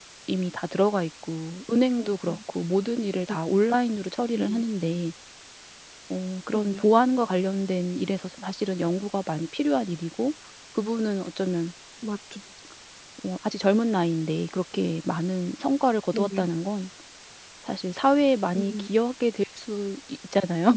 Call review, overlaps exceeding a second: none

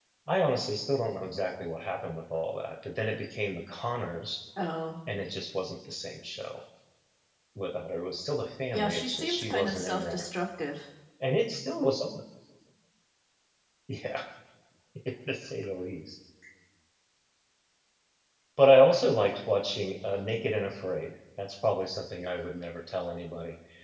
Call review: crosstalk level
present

